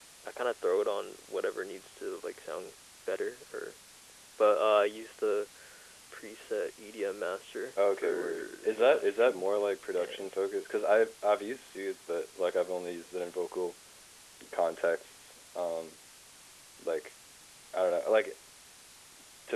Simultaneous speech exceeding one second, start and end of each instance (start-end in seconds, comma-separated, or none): 8.0-9.4